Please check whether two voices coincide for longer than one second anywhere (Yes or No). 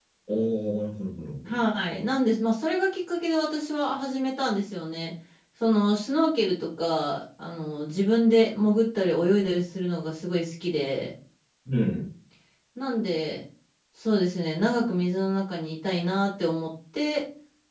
No